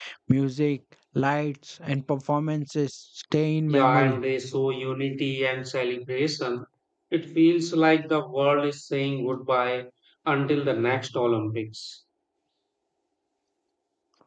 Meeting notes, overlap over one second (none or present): none